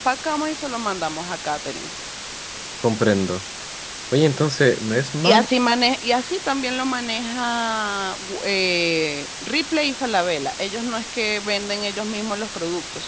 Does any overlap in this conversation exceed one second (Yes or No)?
No